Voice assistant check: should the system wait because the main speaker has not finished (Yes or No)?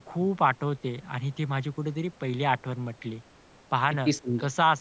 Yes